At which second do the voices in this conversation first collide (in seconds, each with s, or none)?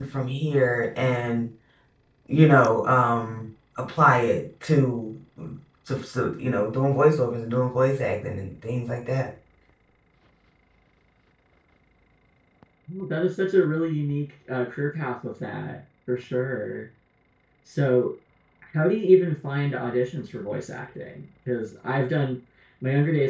none